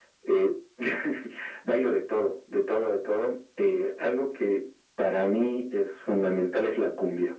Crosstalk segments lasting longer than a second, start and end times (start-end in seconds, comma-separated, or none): none